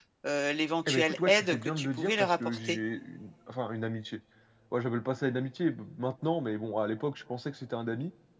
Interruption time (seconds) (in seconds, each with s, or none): 0.9 s